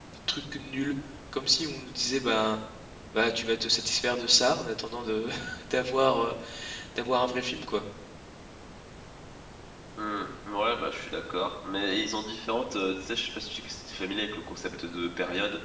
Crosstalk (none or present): none